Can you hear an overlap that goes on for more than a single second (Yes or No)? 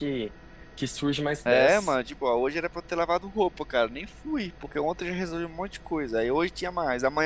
No